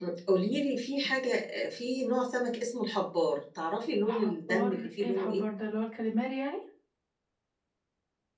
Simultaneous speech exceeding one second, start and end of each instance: 4.1-5.4

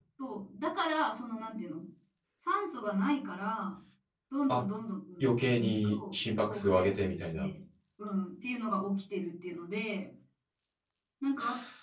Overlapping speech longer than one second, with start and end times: 5.2-7.5

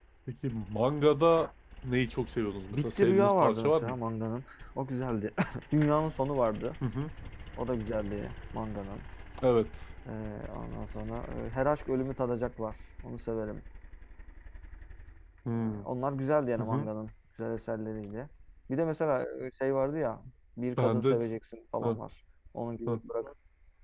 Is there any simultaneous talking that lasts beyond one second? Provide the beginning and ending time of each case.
2.7-4.0

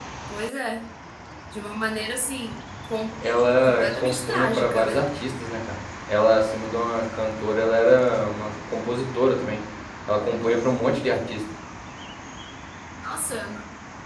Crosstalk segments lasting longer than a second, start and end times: 3.6-5.0

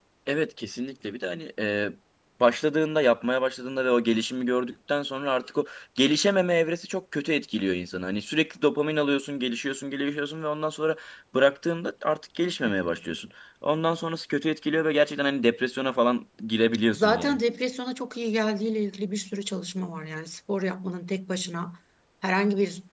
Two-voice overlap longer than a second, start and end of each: none

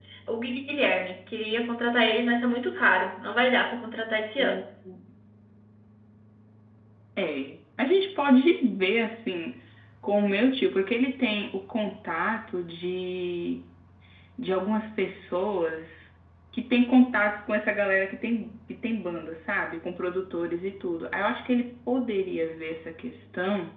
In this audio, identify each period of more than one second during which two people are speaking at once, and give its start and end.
none

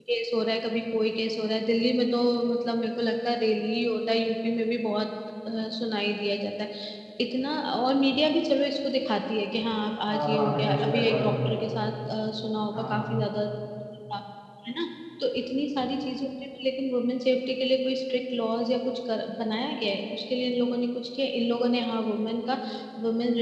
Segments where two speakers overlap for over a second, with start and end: 10.1-11.7

